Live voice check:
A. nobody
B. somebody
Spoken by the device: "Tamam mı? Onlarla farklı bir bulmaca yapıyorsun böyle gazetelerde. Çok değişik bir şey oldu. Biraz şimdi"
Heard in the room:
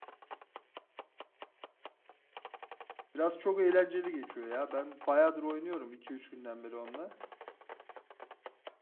B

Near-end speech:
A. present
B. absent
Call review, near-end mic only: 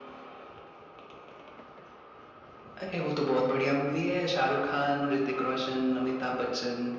B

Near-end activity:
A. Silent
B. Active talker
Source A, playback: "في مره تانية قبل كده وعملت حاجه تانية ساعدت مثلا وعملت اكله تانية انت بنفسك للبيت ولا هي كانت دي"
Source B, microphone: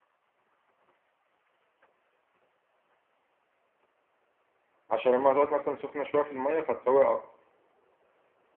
B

